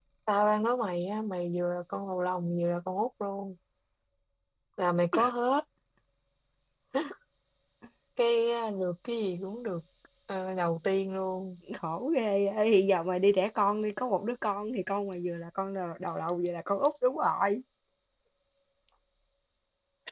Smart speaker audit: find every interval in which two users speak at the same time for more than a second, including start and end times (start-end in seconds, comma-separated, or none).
none